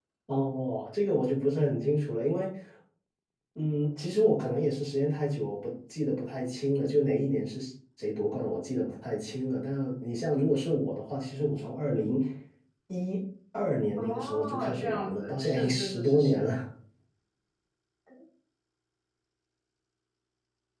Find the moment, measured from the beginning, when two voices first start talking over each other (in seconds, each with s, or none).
14.0 s